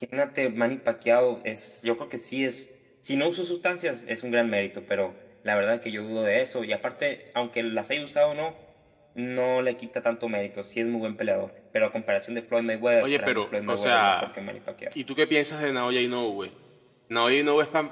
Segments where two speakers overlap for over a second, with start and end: 13.0-14.3

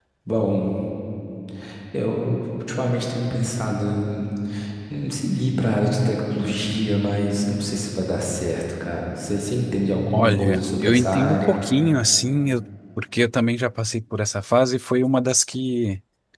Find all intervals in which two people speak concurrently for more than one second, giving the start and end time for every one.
10.1-11.5

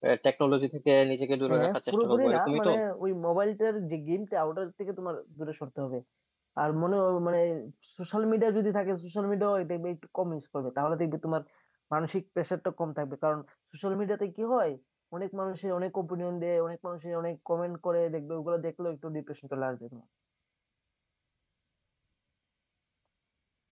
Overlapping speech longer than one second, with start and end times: 1.5-2.7

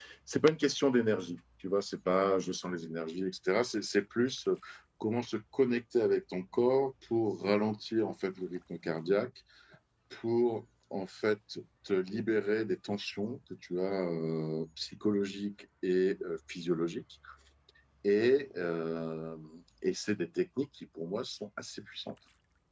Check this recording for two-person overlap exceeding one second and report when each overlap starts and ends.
none

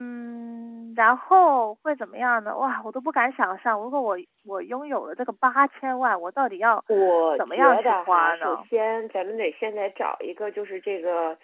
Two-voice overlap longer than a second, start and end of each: 7.4-8.7

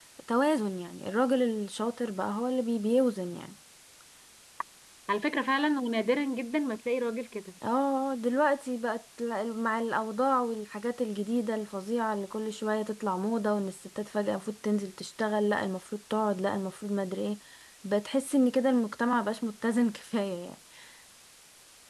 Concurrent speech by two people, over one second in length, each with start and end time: none

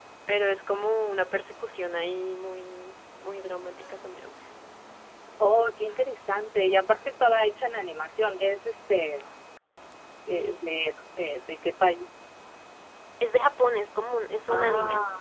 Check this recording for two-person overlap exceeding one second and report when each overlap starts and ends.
none

